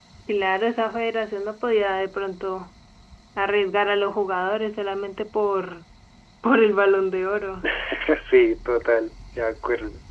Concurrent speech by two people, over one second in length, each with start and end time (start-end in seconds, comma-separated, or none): none